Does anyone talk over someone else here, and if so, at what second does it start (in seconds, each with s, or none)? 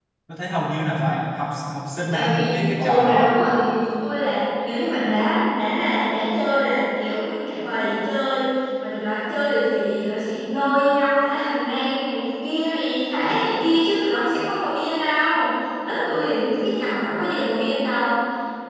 2.1 s